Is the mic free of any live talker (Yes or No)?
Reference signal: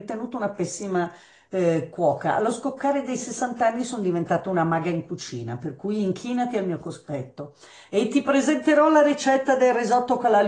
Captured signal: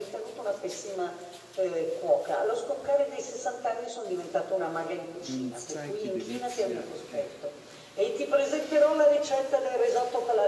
No